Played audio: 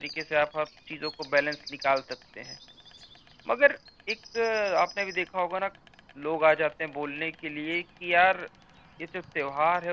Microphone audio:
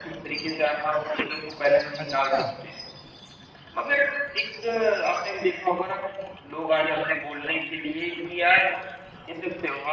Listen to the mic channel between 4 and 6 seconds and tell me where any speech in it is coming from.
echo only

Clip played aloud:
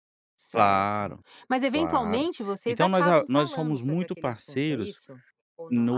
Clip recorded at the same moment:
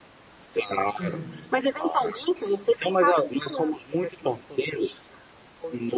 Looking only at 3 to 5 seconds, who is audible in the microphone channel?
echo only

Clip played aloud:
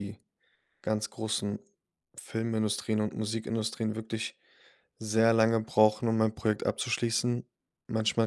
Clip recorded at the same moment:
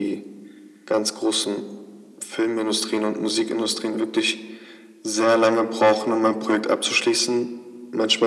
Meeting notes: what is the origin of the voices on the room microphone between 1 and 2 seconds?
echo only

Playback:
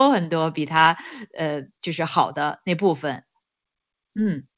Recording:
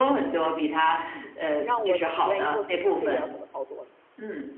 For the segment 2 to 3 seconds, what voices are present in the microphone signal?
both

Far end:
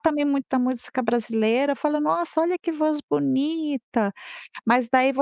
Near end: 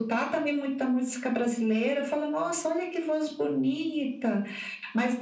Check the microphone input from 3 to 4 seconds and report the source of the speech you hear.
echo only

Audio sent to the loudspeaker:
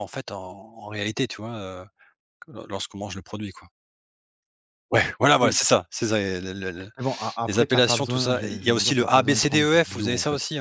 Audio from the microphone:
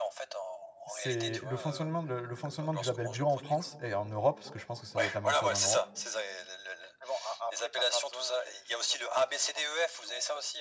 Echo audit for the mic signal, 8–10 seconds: echo only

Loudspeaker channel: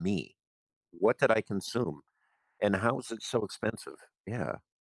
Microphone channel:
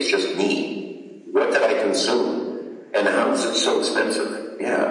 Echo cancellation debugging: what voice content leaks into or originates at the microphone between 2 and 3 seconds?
echo only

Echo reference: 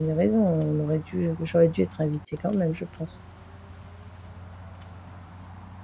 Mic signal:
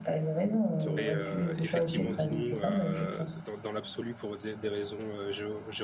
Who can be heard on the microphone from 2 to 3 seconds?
both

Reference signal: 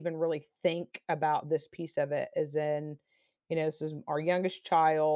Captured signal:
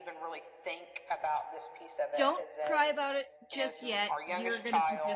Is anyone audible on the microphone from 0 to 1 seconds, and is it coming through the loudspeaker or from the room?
echo only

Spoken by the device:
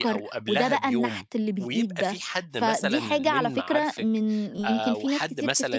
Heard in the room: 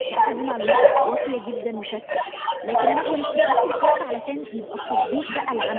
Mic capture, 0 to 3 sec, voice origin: both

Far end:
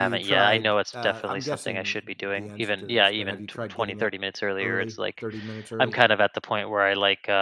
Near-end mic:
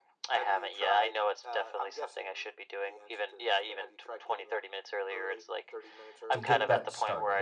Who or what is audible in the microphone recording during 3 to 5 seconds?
echo only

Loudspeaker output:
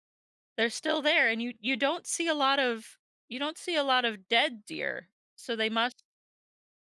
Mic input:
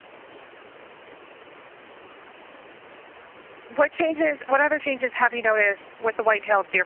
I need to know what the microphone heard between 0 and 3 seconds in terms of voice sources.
neither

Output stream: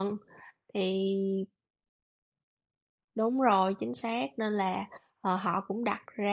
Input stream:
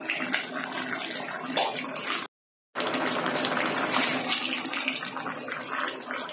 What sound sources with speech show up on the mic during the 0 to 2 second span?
neither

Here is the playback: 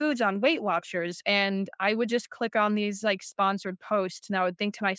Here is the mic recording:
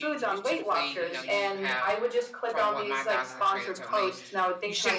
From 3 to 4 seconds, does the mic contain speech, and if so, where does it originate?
both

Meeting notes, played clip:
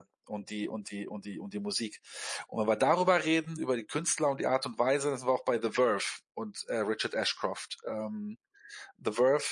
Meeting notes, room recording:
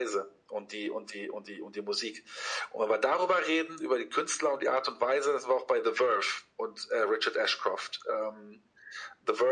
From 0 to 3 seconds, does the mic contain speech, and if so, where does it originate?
echo only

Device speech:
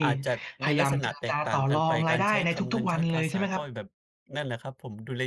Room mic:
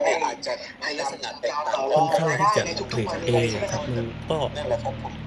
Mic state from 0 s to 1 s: echo only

